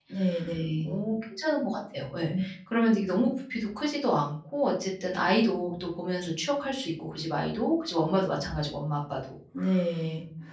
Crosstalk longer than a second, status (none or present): none